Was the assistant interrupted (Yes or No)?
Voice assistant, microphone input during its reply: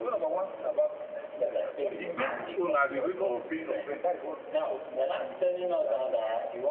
Yes